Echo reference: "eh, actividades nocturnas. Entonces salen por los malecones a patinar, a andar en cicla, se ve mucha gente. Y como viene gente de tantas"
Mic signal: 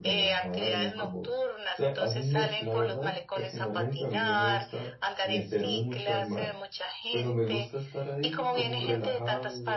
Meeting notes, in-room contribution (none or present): present